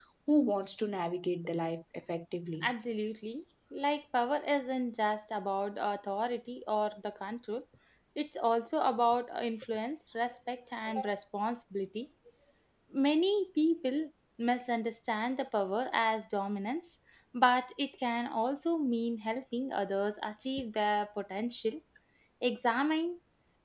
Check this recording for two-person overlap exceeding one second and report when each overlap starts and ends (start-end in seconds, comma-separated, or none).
none